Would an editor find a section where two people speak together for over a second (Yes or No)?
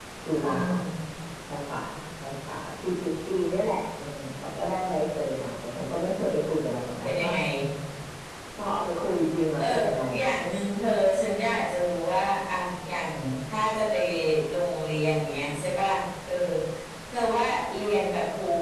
No